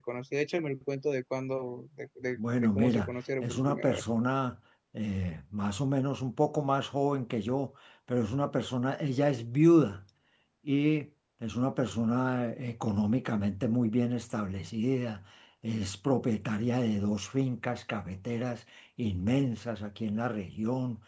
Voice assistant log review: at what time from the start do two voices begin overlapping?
2.4 s

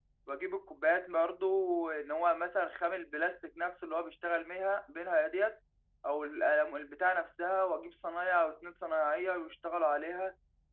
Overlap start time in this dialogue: none

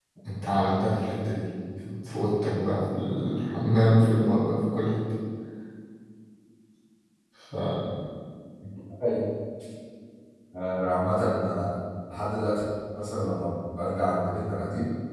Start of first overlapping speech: none

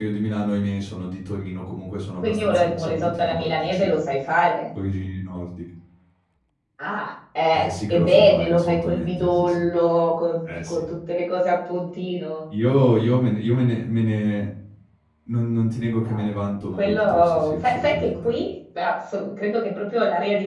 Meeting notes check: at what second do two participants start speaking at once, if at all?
2.2 s

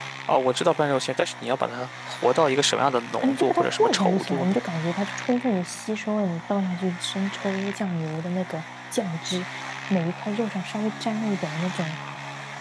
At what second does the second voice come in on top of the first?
3.2 s

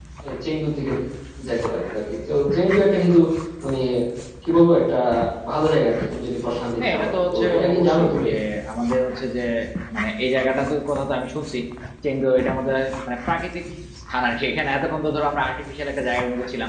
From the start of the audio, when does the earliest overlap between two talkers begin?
6.8 s

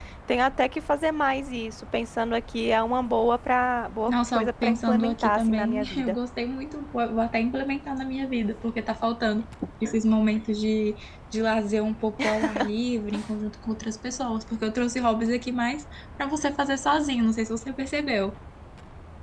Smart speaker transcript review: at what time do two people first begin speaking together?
4.1 s

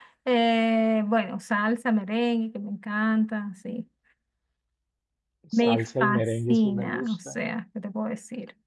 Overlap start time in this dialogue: 5.6 s

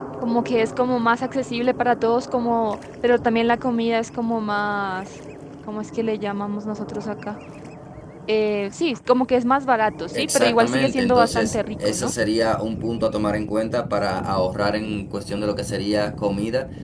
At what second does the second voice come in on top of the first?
10.1 s

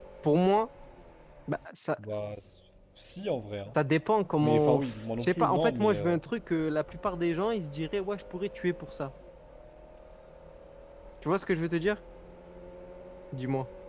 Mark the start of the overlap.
4.4 s

